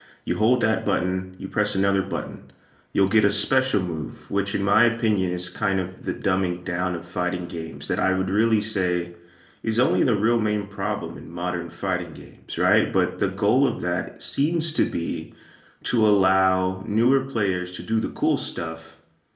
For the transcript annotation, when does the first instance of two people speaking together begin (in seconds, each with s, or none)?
none